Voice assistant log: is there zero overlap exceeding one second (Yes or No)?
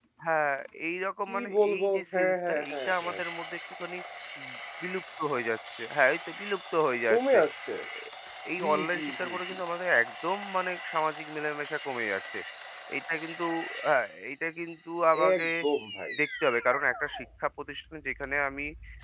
No